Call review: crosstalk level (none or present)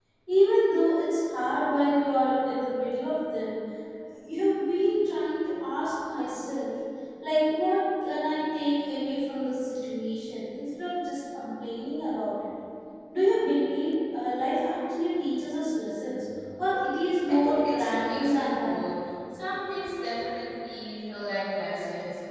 present